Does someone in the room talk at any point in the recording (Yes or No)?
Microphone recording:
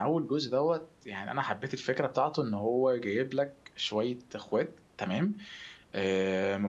Yes